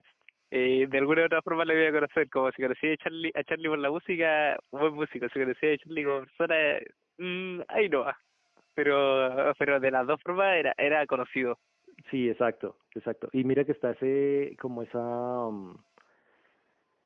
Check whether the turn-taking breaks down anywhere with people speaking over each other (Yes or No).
No